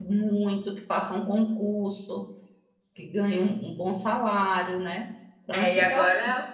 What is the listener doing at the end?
taking over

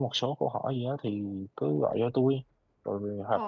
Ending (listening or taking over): listening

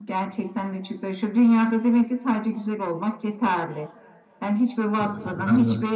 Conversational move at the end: listening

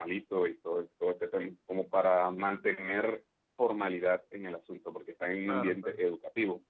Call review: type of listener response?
listening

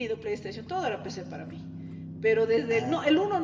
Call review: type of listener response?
listening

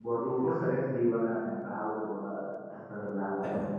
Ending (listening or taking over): taking over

